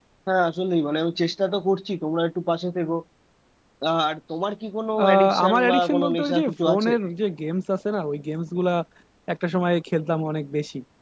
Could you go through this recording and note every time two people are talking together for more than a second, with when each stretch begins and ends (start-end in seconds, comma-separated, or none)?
5.0-6.9